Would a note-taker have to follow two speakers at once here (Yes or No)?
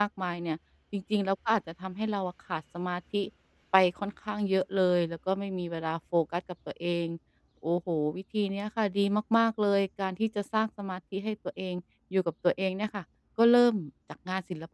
No